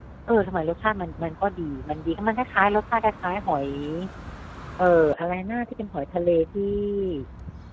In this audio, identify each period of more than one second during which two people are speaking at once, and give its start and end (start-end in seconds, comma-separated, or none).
none